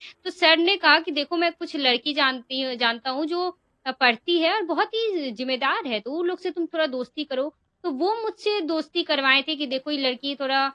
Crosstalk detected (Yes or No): No